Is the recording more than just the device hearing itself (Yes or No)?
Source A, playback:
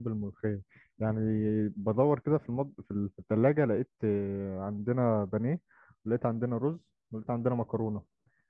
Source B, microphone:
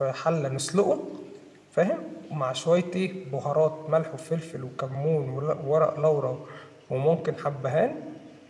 Yes